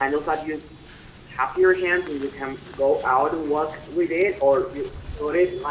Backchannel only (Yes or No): Yes